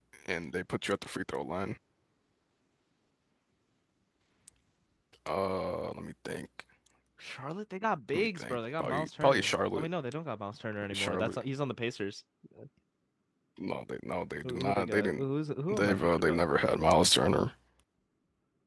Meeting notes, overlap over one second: present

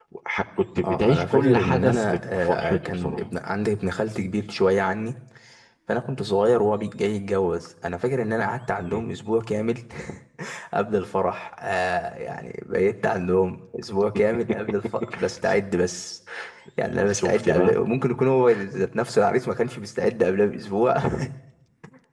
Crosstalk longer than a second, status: present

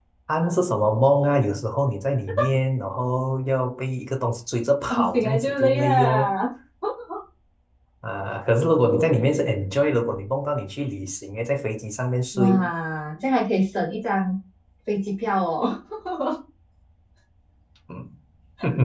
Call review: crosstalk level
present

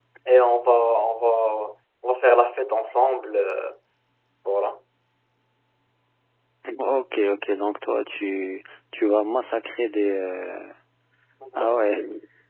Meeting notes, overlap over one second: none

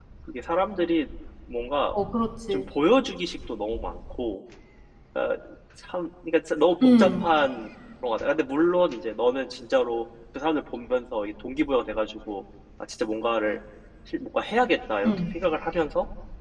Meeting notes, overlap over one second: none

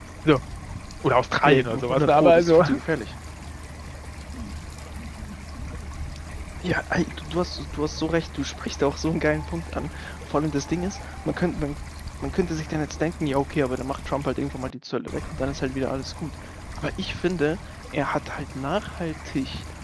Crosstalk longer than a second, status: present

